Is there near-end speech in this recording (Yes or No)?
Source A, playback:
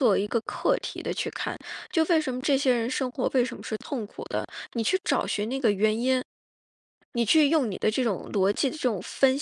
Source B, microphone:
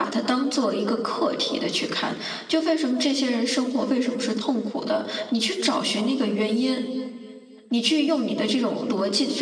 No